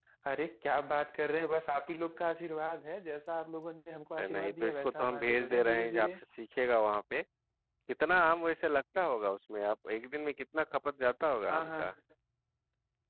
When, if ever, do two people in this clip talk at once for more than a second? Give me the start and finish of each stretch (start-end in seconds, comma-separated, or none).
4.2-6.2